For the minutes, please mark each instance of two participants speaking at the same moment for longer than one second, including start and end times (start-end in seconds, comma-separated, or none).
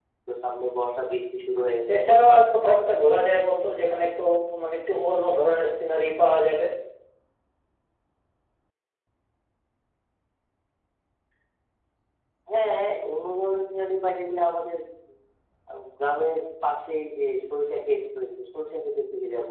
1.9-3.5